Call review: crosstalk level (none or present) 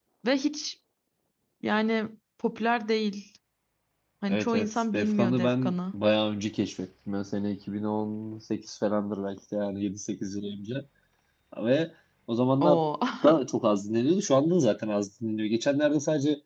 present